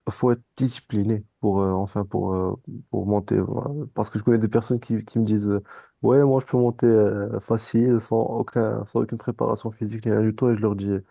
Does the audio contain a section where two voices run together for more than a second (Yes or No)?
No